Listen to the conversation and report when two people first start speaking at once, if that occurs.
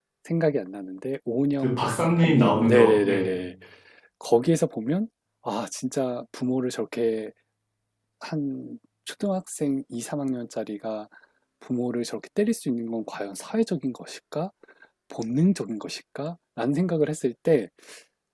2 s

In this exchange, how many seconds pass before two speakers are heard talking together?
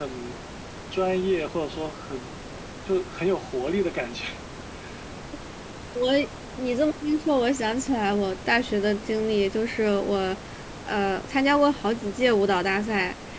none

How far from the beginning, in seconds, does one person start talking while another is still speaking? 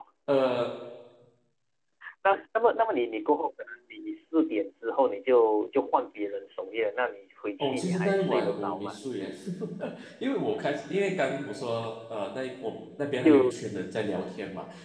8 s

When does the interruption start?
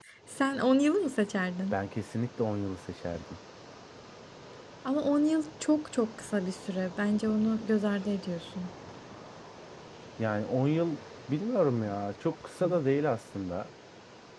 none

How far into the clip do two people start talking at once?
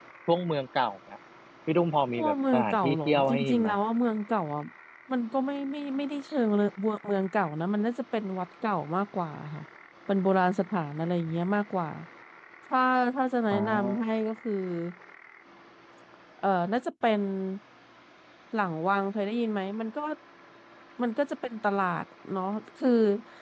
2 s

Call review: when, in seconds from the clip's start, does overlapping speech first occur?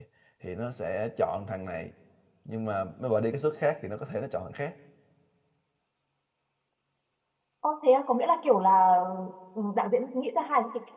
none

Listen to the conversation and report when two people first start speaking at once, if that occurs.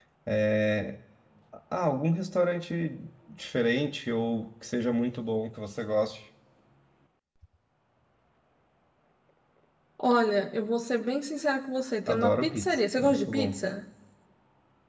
12 s

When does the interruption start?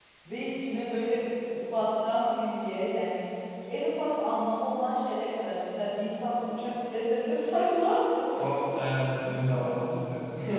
none

